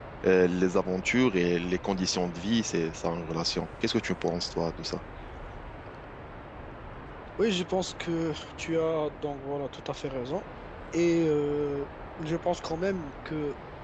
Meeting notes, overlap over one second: none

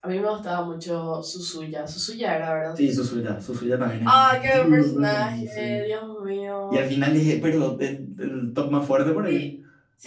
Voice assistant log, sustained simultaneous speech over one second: present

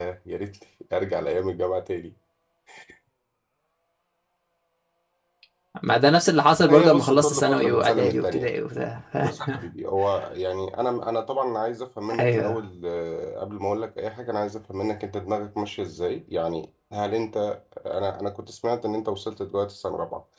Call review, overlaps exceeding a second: present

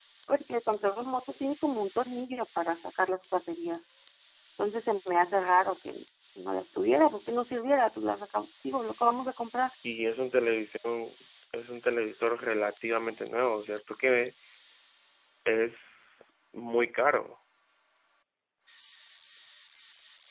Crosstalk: none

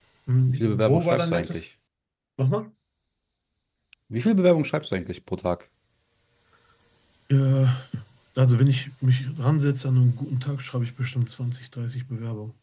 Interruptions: present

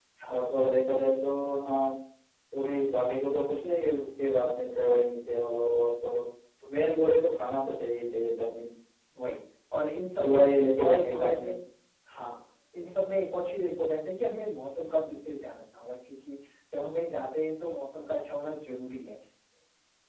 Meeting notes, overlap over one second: present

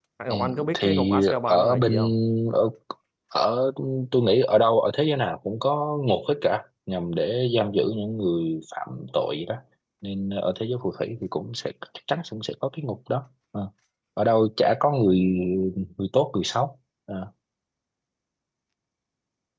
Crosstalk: present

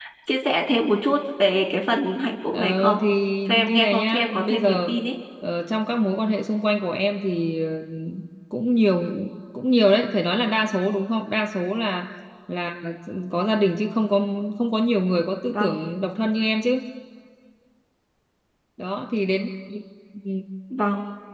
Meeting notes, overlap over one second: present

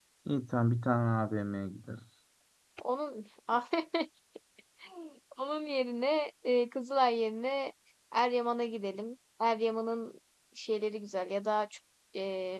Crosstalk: none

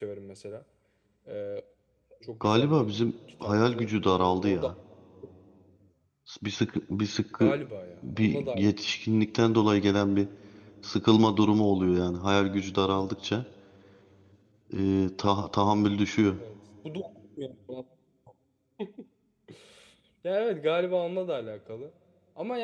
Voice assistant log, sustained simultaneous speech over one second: present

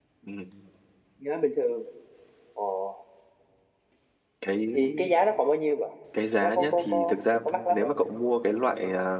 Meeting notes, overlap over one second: present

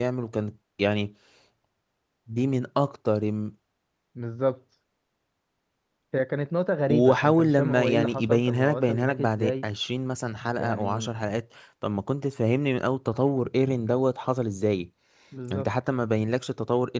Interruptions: present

